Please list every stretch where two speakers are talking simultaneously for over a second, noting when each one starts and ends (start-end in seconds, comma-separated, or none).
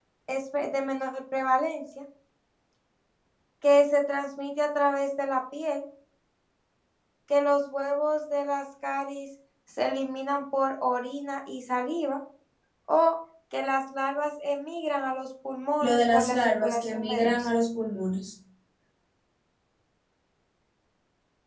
15.8-17.5